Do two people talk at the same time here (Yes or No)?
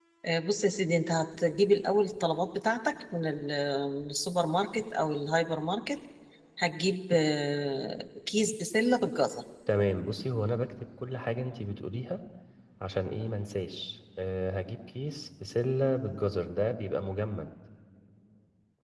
No